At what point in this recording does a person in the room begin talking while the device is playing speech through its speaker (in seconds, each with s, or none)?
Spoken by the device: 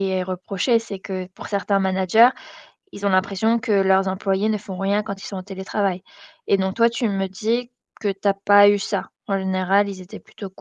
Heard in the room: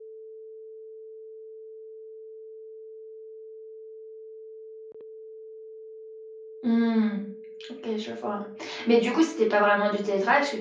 6.6 s